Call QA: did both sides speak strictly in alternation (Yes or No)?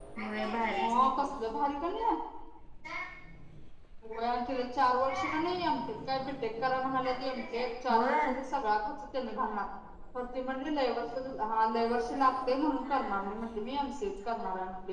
No